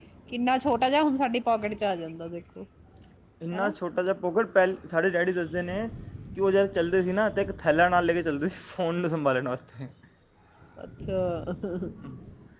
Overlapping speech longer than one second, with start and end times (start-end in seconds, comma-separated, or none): none